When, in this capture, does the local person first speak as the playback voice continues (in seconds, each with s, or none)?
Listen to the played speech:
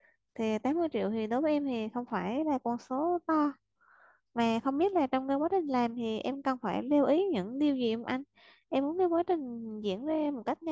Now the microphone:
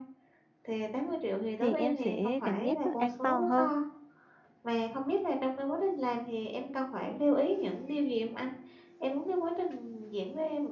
1.6 s